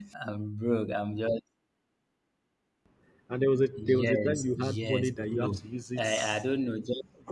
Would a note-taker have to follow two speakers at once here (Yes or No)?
Yes